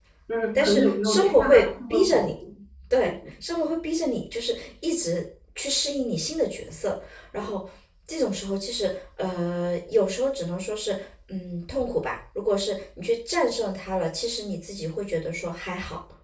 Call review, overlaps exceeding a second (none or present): present